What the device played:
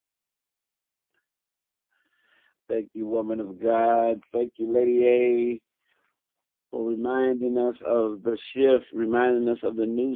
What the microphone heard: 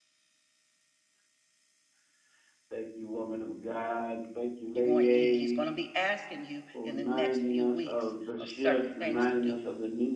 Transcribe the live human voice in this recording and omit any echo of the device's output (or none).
You're going, he- he's going to be asking you in the next few weeks of certain things to do.